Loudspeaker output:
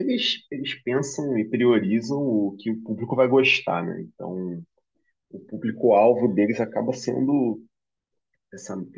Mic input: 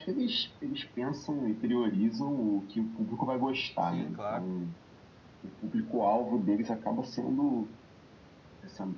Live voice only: sim, claro.

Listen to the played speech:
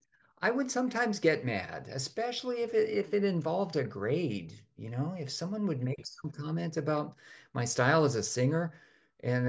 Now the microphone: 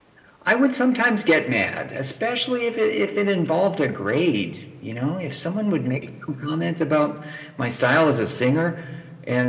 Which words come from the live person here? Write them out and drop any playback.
none

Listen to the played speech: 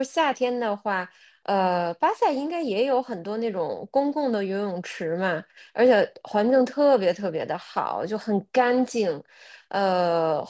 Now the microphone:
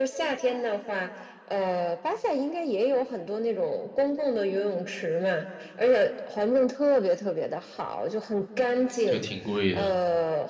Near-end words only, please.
就挺贵的。

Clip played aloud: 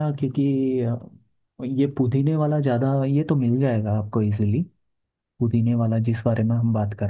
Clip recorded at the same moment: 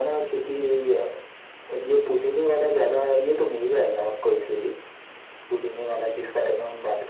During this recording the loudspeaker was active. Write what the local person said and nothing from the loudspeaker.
none

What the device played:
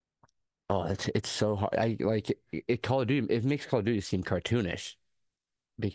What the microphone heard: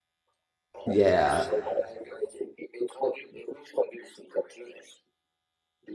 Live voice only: Yeah,

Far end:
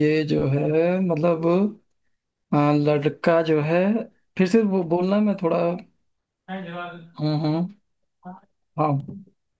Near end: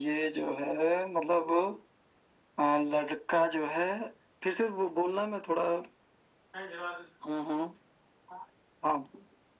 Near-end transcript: none

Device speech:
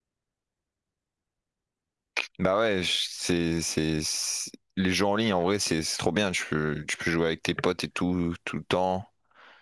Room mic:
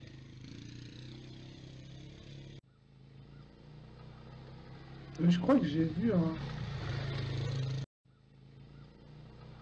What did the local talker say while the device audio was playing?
Euh, Je crois que j'ai vu un,

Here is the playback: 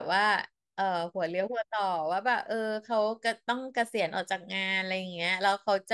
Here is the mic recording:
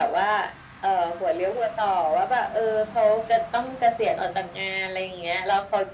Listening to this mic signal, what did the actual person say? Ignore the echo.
none

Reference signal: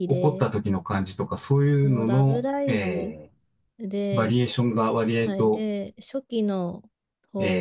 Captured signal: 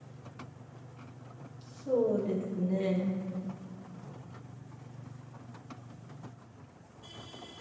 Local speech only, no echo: そうですね。

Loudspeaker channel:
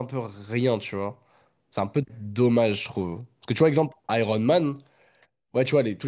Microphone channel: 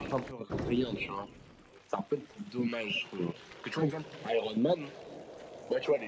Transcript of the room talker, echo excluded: none

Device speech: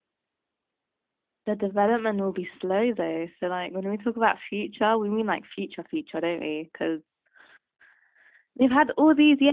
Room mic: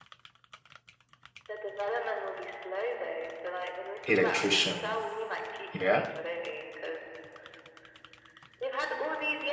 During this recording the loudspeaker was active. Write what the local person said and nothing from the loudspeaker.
electrician? Yeah.

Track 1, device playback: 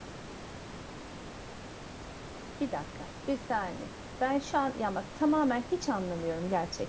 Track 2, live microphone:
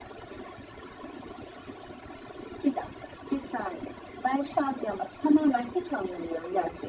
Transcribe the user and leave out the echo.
none

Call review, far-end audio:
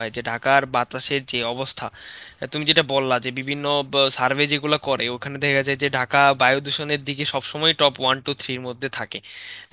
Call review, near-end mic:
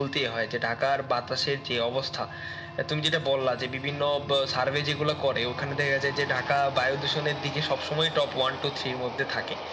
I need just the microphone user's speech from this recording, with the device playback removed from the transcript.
none

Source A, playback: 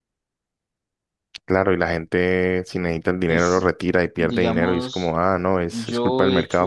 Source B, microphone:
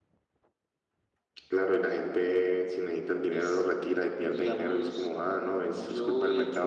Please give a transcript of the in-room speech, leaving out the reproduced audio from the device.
none

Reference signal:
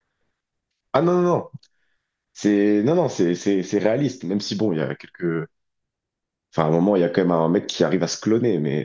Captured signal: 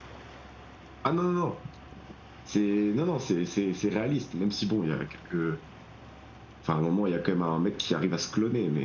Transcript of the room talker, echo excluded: none

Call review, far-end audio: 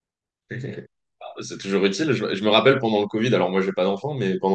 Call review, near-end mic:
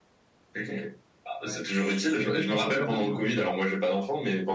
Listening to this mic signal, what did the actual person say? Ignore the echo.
ouais, c'est vrai qu'il faut quand même nourrir.

